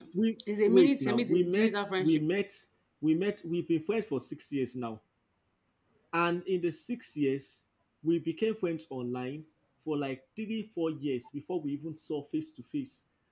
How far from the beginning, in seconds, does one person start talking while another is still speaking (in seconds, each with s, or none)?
0.7 s